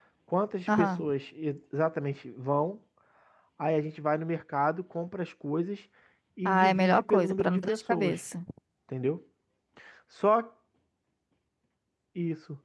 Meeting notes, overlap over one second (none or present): present